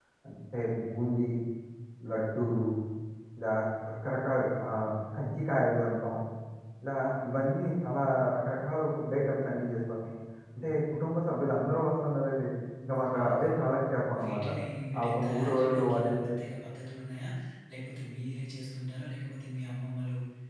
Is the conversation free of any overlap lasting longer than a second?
No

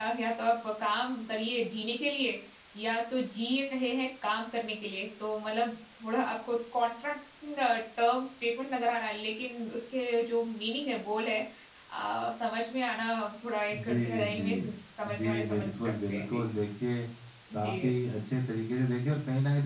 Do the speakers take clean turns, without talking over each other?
No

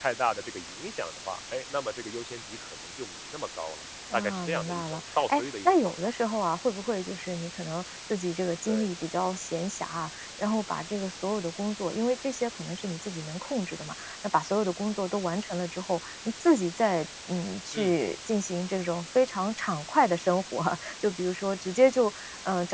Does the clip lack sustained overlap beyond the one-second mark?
No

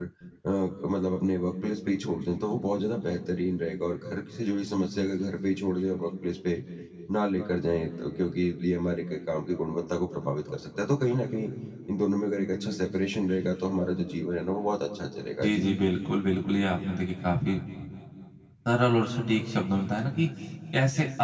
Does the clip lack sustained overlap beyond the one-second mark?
Yes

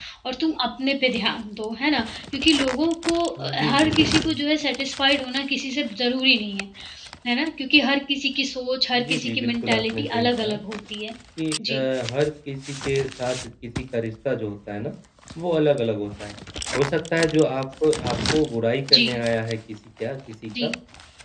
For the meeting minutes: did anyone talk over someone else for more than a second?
Yes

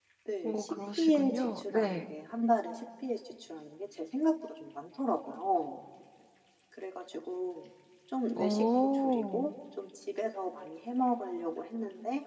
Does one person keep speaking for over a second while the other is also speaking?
Yes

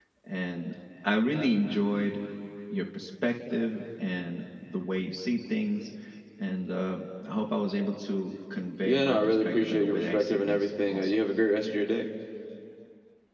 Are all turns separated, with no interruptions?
No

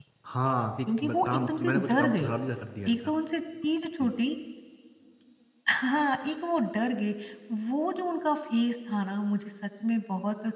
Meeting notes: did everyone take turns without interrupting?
No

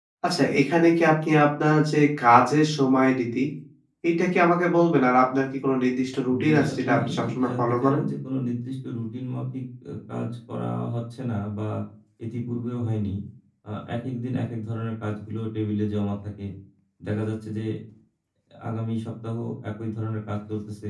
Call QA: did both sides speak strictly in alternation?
No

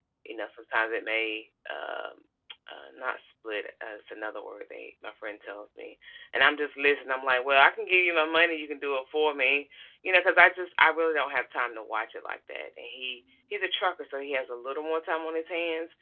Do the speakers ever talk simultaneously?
No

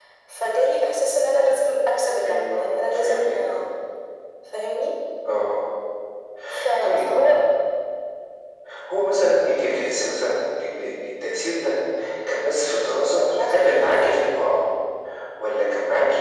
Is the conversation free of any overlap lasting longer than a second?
No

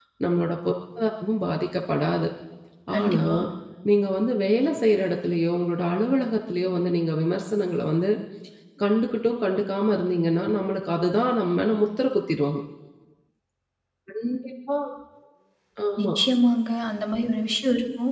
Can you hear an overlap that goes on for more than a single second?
No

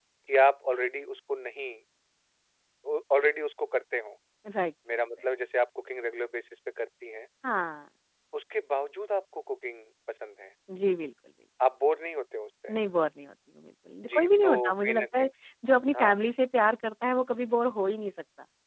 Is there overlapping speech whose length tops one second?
Yes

